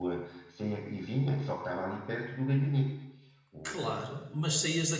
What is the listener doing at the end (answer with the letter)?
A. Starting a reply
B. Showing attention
A